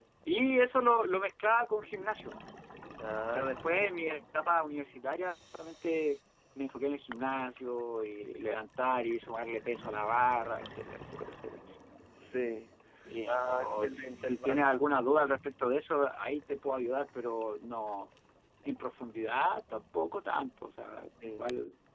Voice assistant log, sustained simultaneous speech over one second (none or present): present